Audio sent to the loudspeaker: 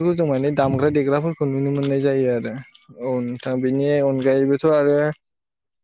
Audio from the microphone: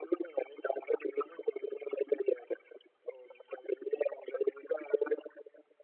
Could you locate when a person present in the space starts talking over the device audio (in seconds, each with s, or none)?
none